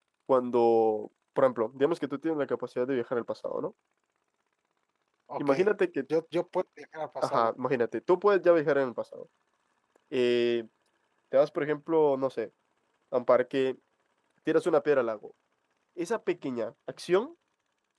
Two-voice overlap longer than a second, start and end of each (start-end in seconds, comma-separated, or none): none